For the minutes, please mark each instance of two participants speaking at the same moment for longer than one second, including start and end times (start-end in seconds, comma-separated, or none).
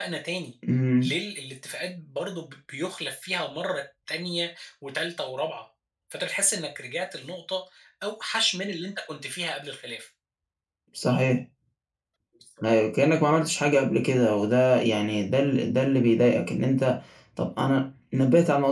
none